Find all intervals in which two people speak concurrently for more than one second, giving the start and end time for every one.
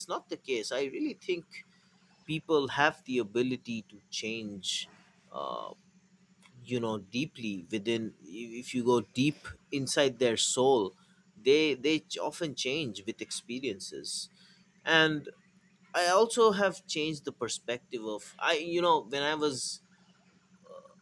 none

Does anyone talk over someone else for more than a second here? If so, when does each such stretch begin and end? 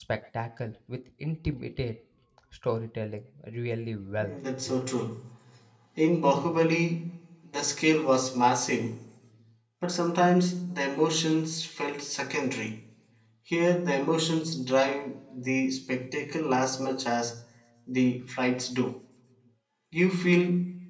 none

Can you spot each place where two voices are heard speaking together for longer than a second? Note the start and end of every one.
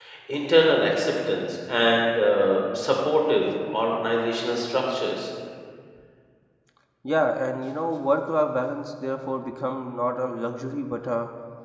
none

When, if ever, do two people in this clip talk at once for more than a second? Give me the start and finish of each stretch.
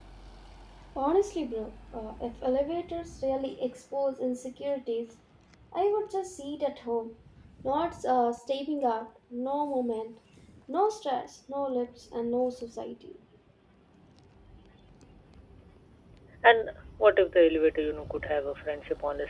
none

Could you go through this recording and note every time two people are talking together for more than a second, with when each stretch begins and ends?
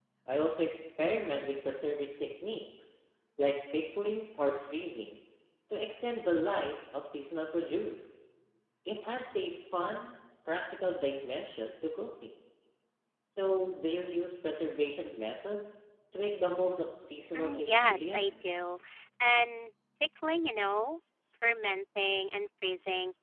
17.4-18.6

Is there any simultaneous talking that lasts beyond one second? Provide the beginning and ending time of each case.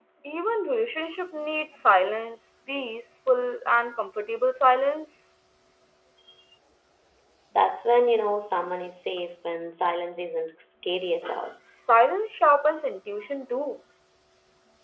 none

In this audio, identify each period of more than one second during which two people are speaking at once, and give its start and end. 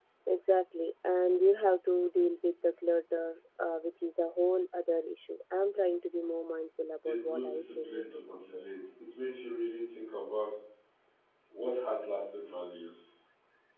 7.0-8.6

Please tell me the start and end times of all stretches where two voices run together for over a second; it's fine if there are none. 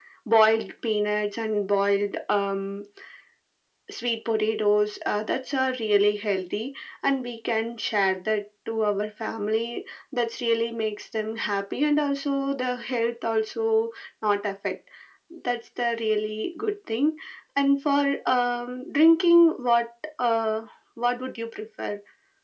none

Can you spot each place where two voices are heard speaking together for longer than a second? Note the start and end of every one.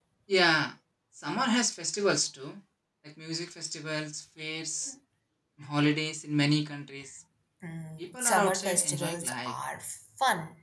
8.2-9.5

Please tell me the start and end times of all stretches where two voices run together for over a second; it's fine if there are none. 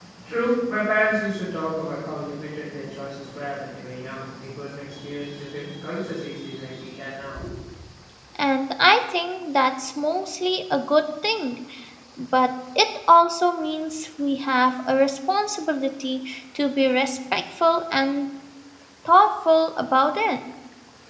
none

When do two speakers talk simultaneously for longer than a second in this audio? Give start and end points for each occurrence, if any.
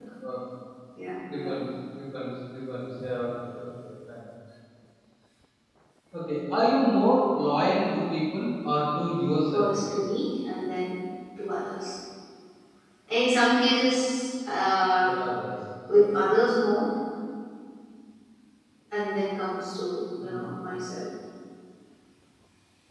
none

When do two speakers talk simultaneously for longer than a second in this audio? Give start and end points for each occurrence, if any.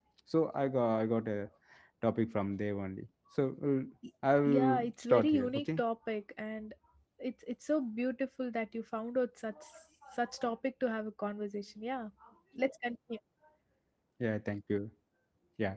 4.5-5.8

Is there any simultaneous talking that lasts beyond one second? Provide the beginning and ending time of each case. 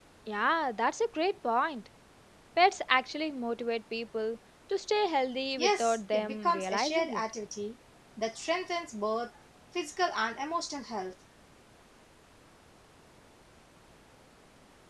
5.6-7.2

